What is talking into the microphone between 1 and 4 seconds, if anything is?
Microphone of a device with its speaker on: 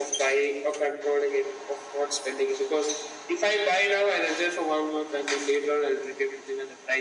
echo only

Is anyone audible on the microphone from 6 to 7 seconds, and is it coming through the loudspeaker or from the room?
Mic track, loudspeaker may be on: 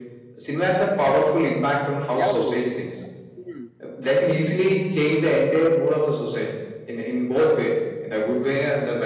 echo only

